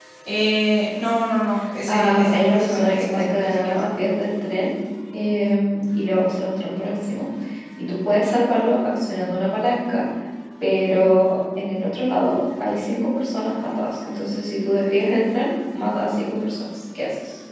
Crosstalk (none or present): present